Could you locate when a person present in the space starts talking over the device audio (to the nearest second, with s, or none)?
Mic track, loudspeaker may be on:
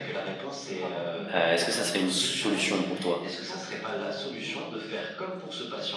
1 s